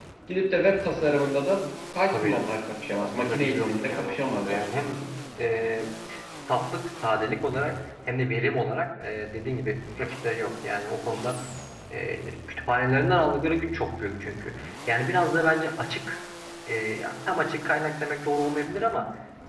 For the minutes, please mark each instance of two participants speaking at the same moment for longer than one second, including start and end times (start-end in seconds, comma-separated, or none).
3.3-4.6